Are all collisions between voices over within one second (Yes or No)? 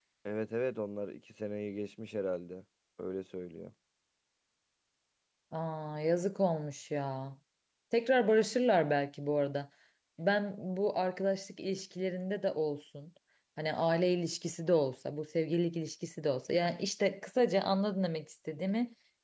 Yes